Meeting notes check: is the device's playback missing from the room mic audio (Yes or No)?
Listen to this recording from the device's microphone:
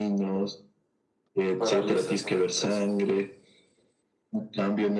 No